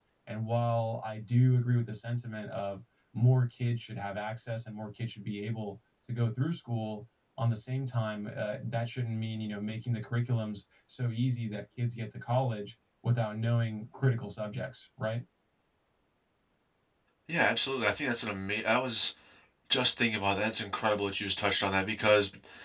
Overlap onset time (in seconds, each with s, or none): none